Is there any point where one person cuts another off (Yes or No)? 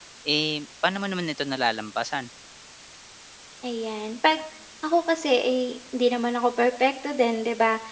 No